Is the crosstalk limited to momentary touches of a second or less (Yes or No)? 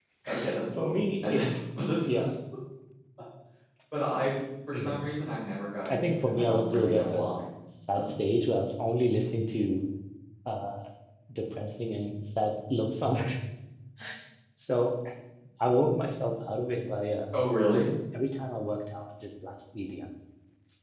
No